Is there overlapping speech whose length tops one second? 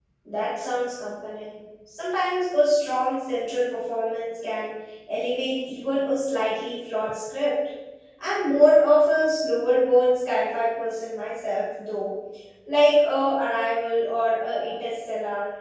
No

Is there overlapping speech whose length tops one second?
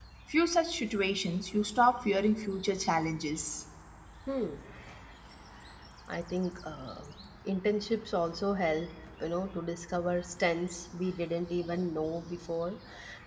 No

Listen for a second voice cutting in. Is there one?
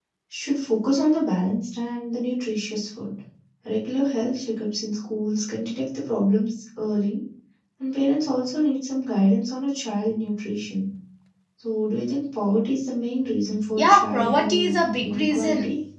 Yes, from 13.8 s

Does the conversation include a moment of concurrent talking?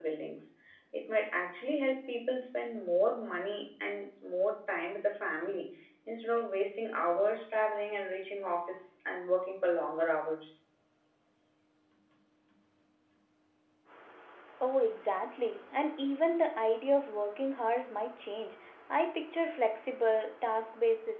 No

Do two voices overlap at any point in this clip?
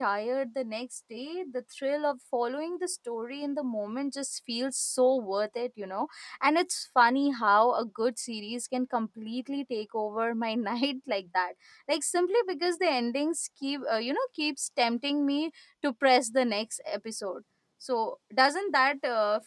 No

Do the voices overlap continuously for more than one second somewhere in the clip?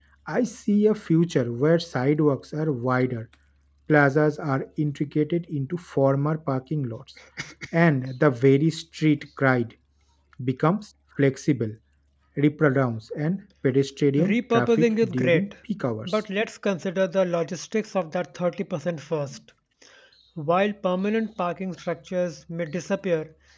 Yes, from 14.2 s

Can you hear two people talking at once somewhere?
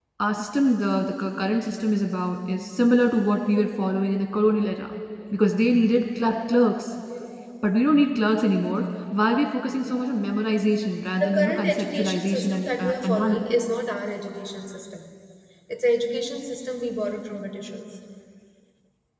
Yes, from 11.2 s

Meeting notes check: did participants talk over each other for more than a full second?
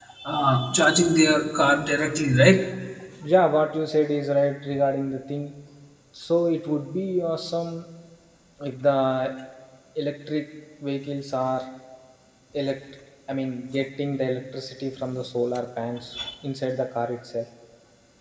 No

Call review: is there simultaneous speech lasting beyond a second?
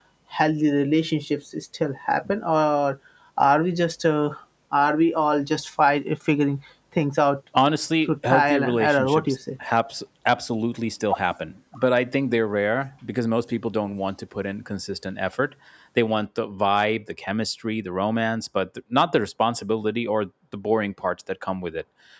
Yes, from 8.1 s

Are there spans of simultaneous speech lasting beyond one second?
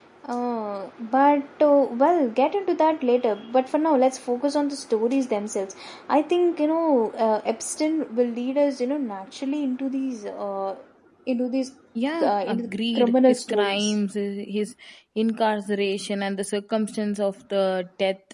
Yes, from 12.2 s

